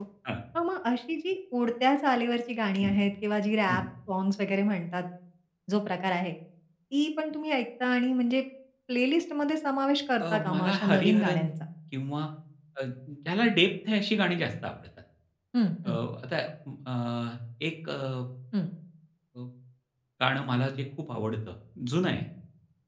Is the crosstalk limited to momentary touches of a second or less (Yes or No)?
No